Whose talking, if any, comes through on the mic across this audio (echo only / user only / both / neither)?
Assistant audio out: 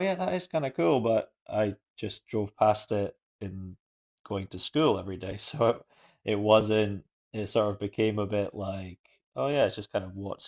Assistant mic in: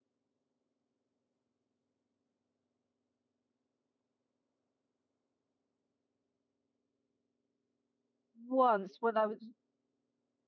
user only